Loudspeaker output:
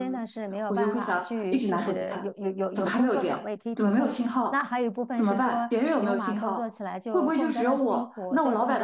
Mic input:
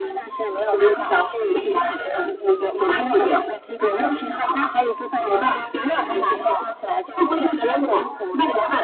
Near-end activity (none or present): none